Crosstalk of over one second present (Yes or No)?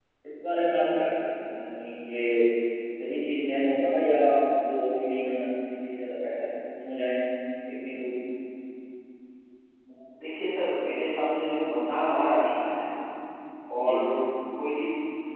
No